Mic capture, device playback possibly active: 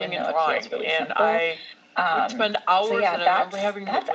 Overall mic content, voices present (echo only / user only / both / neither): echo only